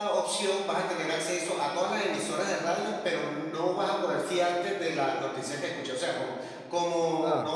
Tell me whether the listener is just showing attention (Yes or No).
Yes